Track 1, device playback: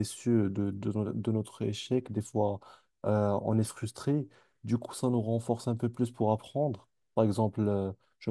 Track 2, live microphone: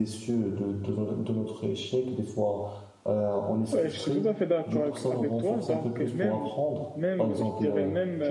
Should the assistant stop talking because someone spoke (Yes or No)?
Yes